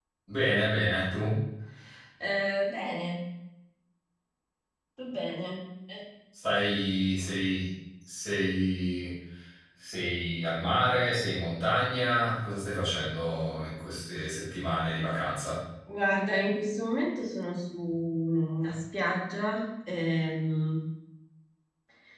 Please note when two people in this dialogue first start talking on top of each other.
none

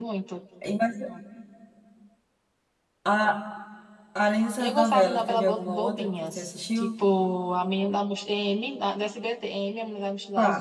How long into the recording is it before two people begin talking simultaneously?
5 s

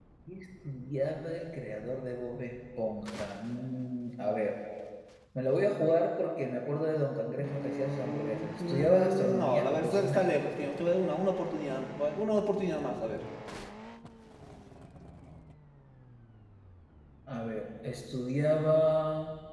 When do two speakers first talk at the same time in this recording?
7 s

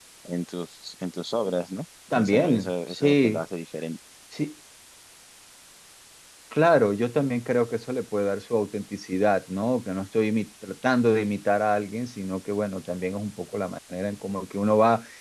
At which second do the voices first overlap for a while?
2 s

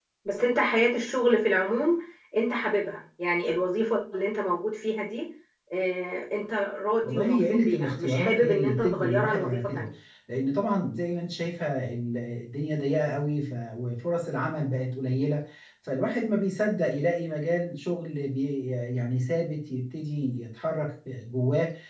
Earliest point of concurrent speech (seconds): 7 s

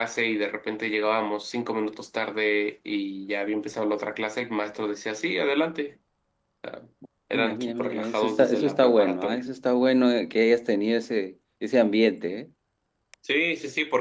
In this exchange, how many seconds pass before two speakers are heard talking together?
7 s

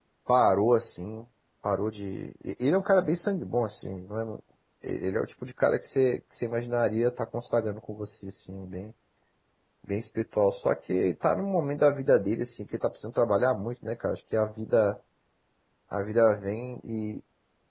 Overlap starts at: none

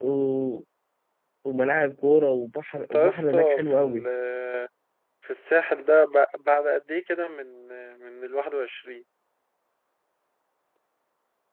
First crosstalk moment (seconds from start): 3 s

